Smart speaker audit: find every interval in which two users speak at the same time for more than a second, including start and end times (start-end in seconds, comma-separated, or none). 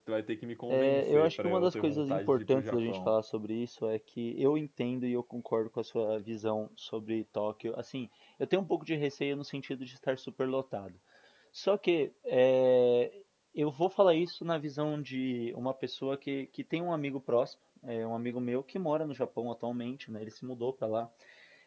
0.7-3.1